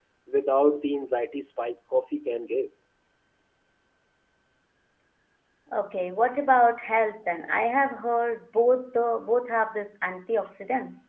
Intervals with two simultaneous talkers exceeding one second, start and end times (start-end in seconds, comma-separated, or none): none